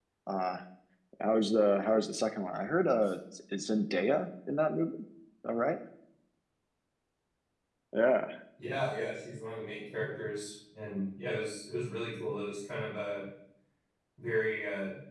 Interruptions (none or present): none